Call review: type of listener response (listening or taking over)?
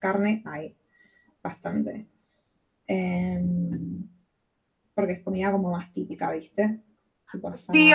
taking over